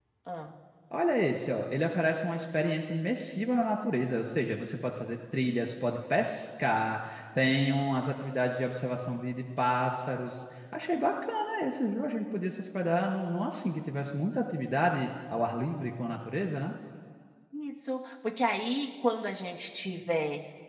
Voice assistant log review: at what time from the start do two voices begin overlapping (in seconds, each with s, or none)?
none